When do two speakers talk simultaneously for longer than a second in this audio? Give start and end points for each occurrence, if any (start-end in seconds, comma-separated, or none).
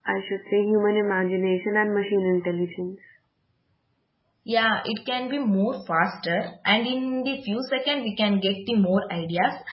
none